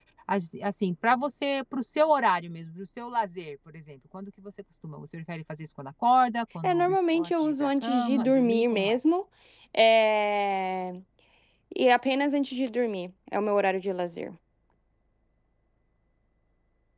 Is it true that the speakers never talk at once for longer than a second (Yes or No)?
No